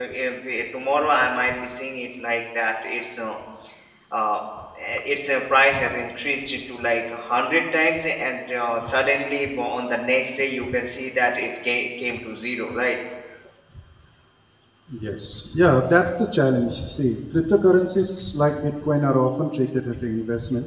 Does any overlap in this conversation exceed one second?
No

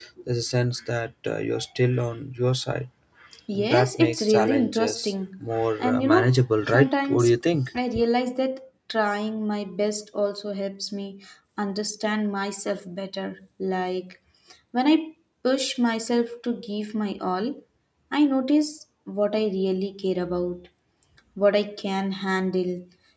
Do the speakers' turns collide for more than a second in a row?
Yes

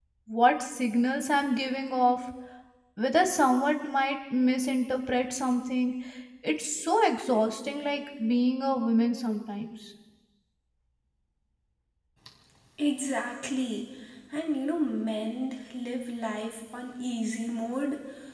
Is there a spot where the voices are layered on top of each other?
No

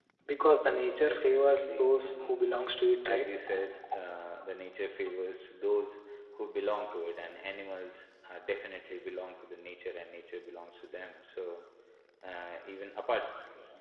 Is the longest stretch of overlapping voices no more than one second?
No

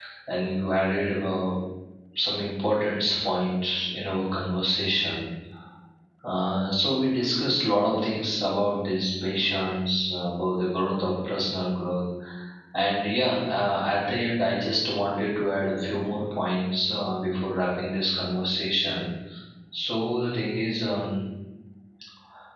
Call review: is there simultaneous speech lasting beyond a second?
No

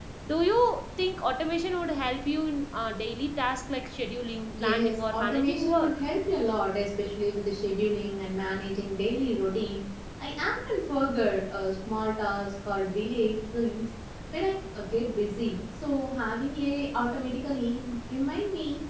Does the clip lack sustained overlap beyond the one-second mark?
No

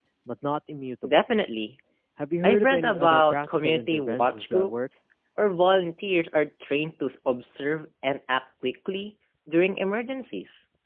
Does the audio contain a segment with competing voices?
Yes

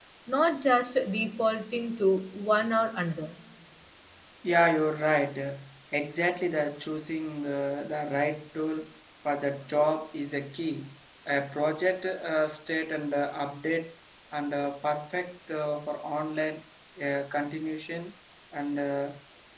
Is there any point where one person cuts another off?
No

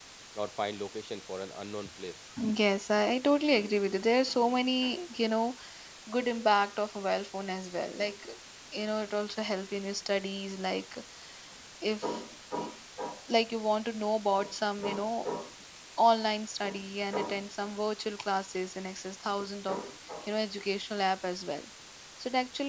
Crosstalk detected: No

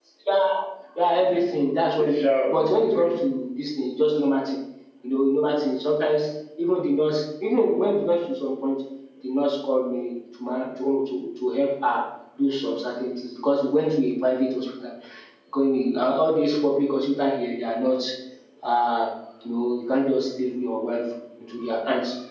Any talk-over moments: Yes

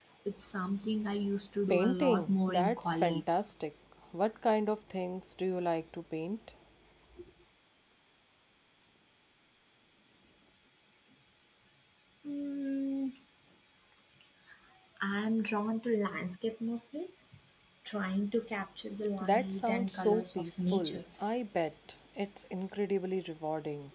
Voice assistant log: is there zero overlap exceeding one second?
No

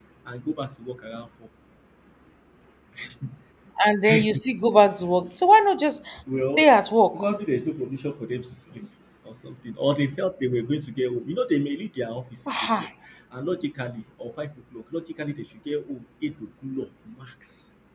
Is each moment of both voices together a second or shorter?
Yes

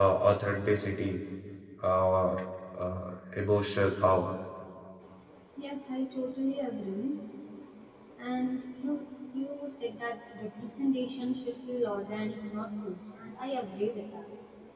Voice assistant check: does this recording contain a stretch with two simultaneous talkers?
No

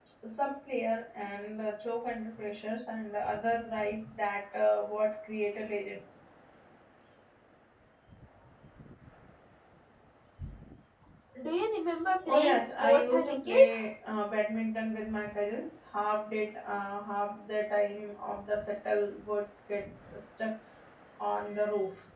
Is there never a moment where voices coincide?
No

